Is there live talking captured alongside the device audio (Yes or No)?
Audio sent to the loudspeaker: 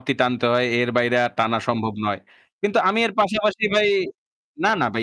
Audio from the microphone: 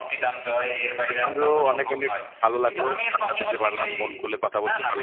Yes